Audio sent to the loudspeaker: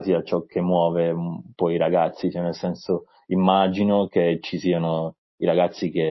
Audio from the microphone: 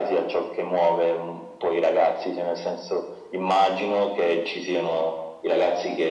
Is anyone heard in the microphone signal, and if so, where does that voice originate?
echo only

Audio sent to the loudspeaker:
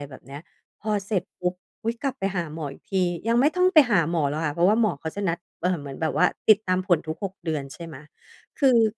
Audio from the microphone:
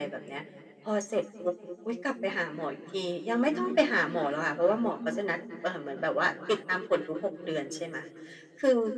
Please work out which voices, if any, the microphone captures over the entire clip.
echo only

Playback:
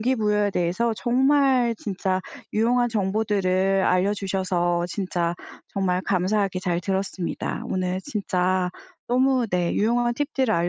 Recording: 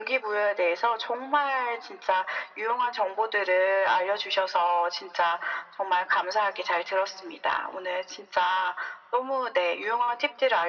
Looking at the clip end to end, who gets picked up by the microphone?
echo only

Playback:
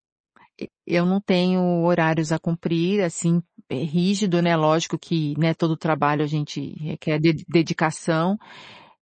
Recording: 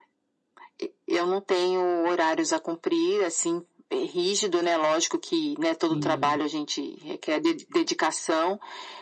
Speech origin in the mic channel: both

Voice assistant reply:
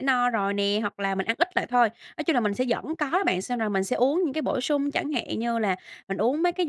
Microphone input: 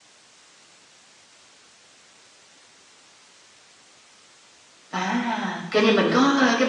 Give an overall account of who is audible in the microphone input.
user only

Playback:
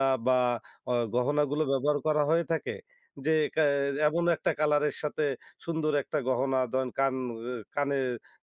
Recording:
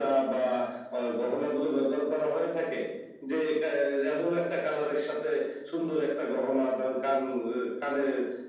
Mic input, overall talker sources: echo only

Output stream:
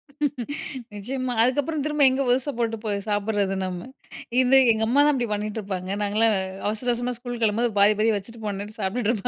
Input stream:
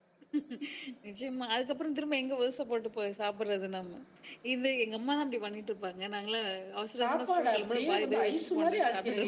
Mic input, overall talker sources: both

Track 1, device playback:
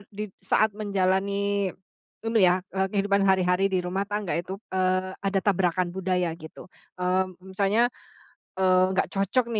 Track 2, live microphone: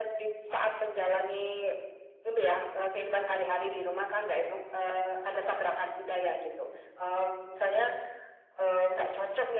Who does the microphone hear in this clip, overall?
echo only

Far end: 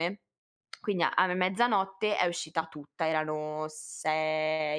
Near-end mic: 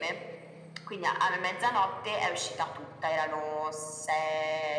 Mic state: echo only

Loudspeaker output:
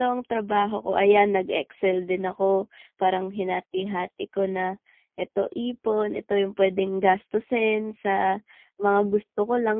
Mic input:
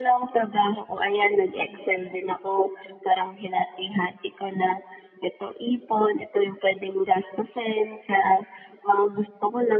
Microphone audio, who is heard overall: echo only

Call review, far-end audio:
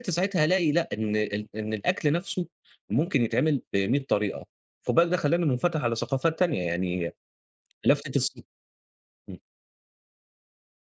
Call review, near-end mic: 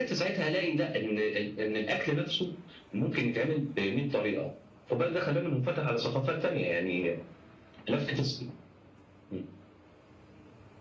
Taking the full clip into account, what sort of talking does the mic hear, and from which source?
echo only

